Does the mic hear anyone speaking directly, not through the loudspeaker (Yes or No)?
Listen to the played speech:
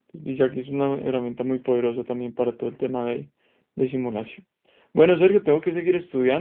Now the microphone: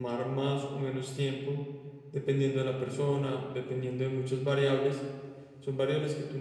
Yes